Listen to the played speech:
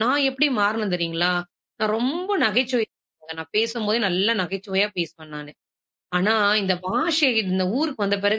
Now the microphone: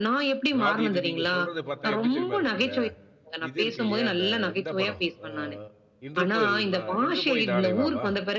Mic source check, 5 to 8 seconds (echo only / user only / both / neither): both